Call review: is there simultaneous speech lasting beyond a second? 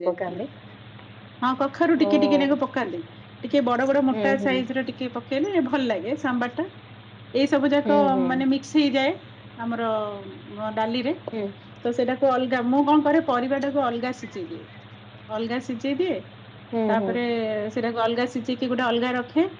No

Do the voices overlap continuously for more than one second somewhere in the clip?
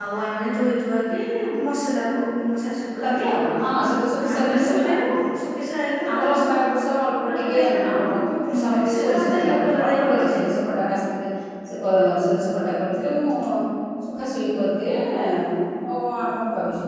Yes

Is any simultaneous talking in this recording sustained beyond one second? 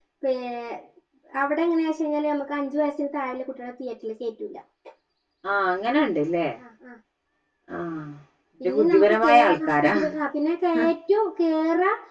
Yes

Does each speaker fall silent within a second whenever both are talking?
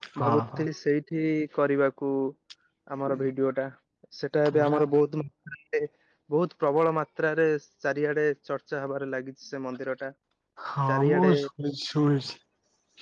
Yes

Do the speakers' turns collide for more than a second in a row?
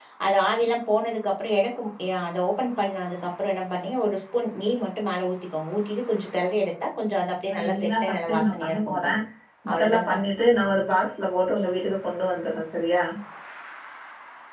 Yes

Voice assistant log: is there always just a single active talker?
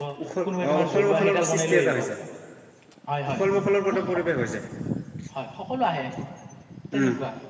No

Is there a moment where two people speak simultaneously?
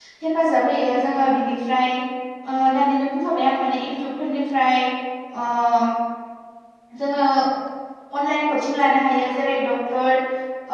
No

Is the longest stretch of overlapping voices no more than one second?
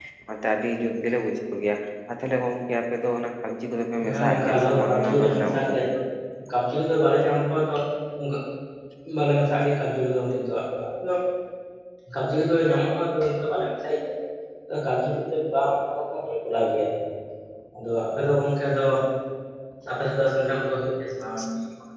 No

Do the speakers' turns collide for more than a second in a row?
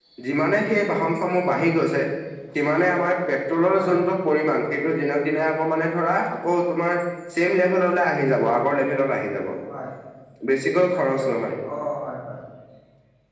No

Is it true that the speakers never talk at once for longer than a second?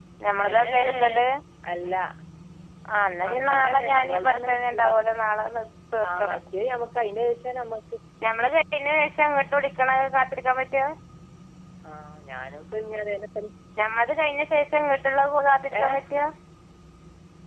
No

